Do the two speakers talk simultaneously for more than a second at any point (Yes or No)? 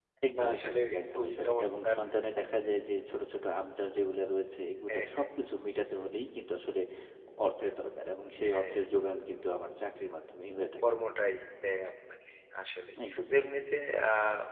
Yes